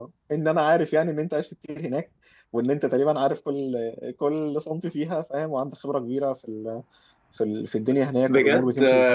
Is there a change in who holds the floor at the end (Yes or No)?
Yes